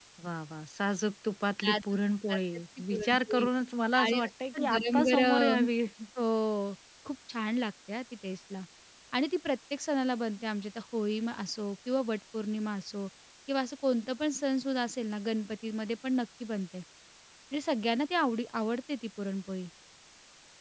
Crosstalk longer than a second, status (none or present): present